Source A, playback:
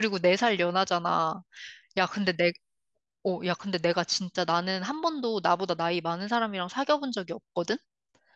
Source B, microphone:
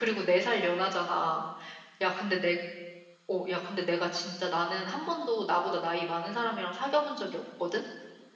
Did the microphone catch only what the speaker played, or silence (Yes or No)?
Yes